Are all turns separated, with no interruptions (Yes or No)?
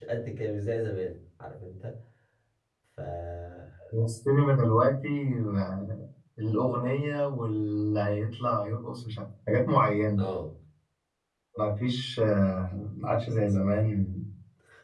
Yes